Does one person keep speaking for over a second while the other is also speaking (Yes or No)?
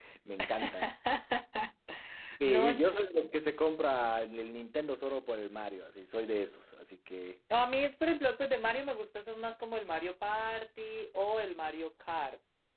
No